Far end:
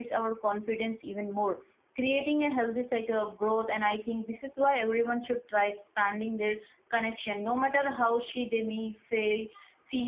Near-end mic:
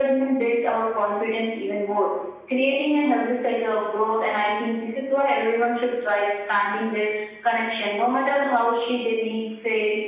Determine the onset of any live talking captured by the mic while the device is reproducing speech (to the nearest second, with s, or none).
none